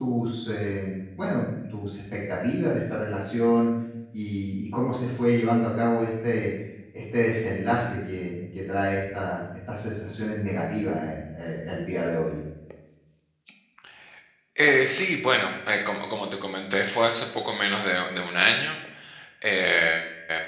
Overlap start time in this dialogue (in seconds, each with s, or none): none